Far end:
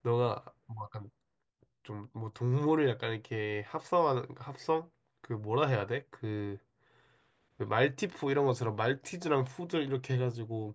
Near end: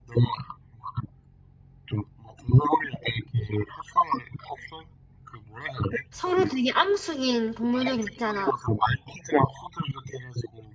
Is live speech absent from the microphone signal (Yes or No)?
No